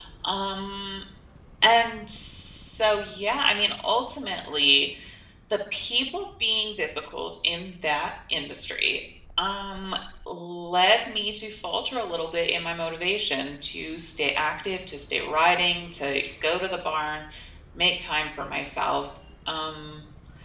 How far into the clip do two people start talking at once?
none

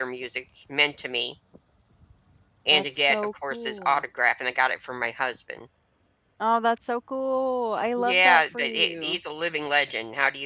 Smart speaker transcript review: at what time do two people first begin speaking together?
3 s

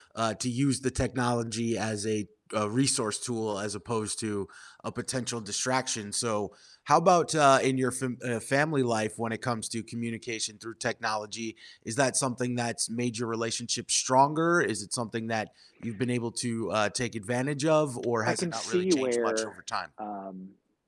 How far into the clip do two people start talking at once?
18 s

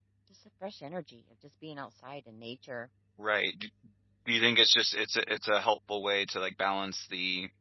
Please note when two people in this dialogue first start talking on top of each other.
none

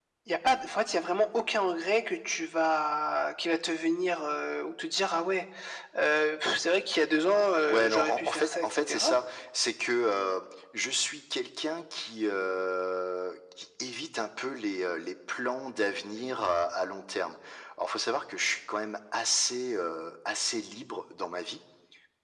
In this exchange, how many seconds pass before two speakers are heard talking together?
8 s

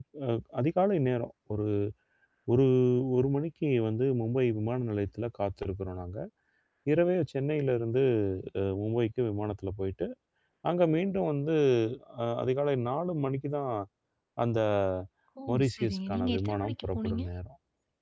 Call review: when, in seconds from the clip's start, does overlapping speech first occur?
16 s

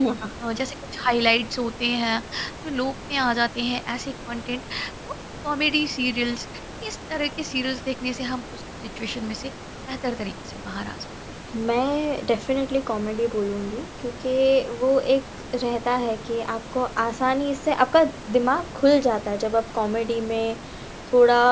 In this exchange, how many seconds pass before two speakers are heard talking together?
none

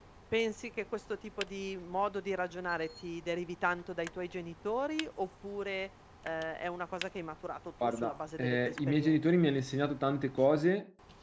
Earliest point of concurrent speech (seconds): 8 s

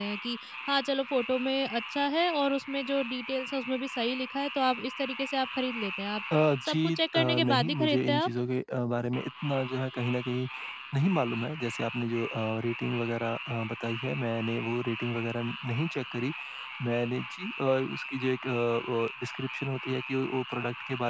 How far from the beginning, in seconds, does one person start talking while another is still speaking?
7 s

